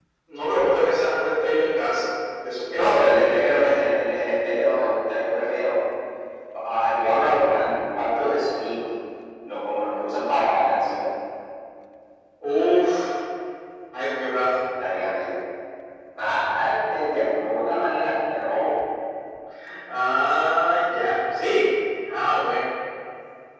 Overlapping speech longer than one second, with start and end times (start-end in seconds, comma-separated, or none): 2.7-3.9